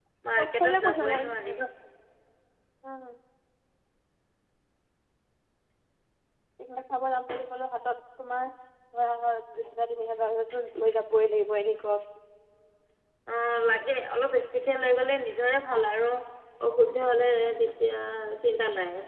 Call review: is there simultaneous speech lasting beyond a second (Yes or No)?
Yes